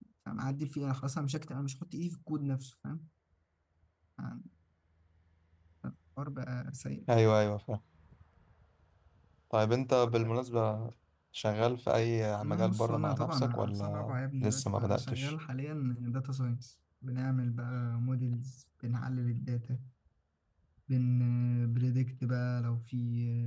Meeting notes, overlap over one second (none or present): present